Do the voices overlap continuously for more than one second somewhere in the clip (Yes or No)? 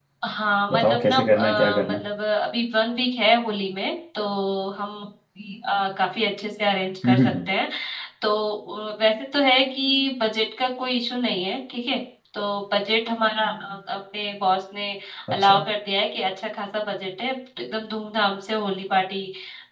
Yes